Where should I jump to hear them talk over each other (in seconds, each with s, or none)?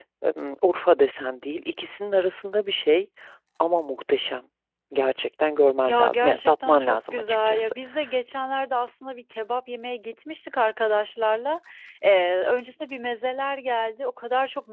5.9 s